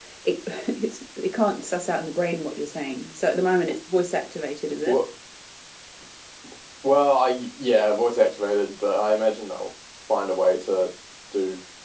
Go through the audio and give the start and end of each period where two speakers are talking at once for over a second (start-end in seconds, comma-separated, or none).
none